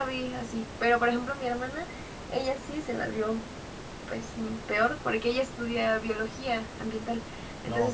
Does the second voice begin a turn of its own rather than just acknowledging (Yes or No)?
No